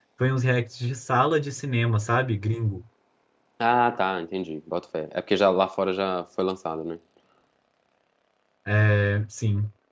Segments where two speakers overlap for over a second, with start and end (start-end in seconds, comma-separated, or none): none